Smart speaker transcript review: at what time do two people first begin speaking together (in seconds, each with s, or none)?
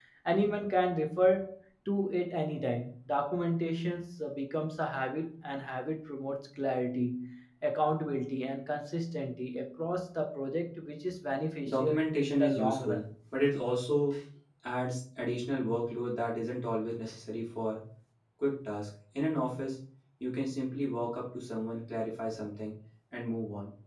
11.6 s